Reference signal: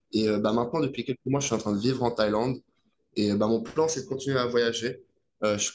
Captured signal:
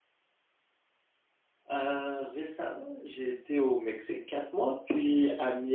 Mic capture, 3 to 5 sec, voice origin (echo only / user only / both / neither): user only